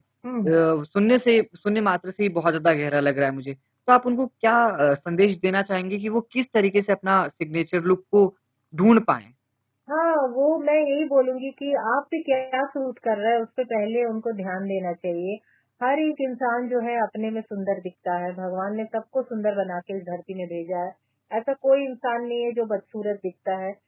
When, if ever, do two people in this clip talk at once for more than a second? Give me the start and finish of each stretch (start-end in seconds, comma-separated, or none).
none